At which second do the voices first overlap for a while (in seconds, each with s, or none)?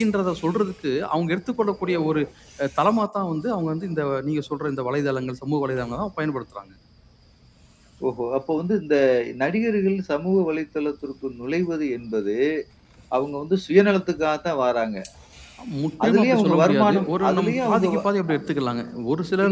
16.0 s